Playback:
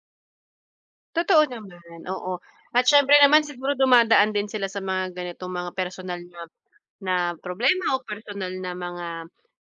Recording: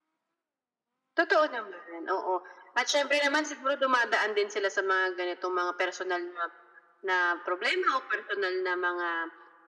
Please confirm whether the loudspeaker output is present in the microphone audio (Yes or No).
Yes